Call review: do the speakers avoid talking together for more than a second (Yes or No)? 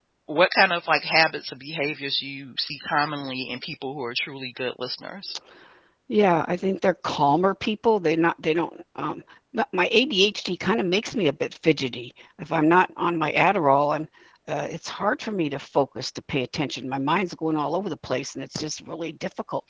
Yes